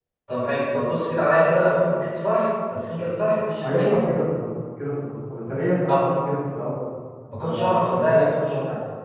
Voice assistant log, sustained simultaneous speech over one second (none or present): present